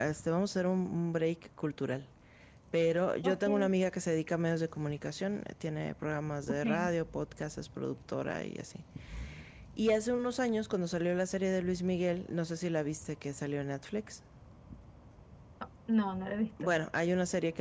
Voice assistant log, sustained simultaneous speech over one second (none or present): none